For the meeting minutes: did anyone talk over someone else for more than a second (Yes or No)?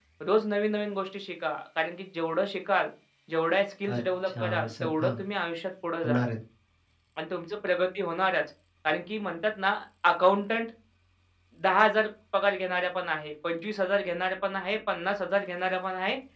Yes